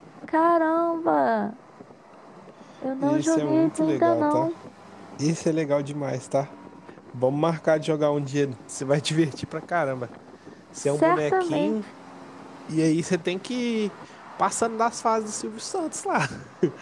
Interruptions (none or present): present